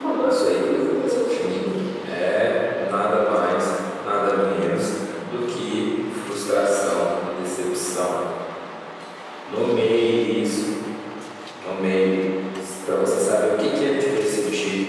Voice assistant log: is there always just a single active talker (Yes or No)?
No